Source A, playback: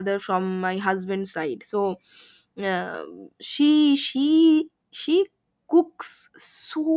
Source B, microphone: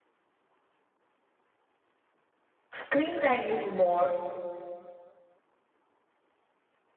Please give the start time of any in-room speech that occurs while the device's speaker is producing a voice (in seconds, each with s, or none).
2.7 s